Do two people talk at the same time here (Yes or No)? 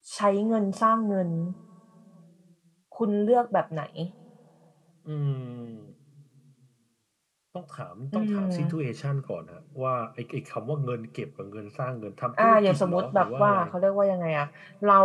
Yes